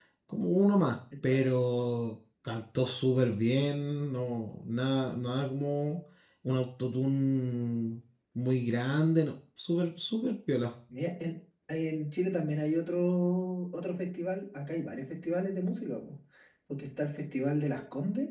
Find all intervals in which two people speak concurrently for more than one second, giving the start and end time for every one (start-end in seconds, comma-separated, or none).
none